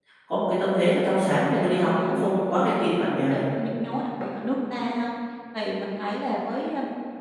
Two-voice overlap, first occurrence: 1 s

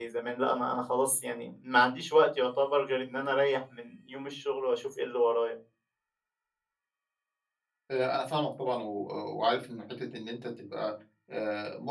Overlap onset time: none

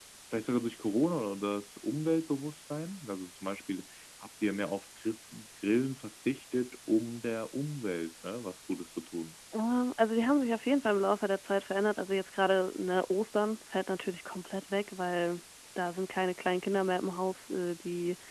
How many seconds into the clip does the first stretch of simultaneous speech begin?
none

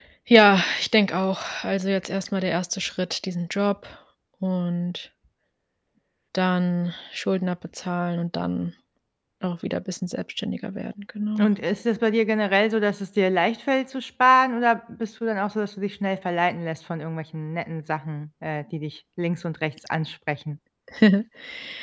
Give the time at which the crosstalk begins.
none

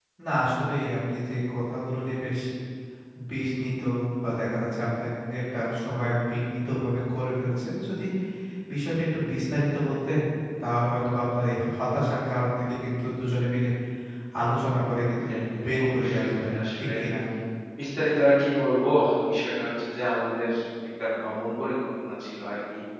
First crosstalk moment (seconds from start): 16 s

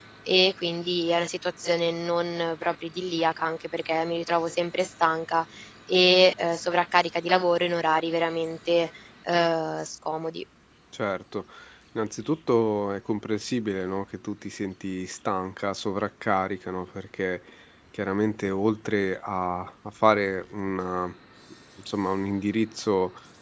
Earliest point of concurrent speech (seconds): none

